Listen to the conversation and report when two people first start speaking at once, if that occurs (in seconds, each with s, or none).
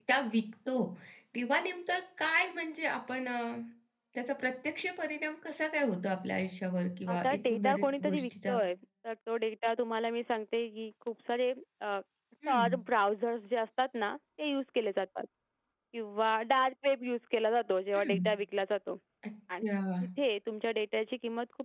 7.1 s